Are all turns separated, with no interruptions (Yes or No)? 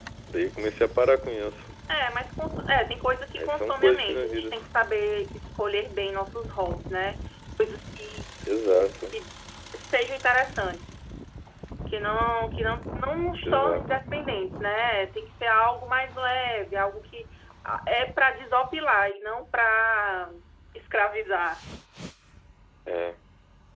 No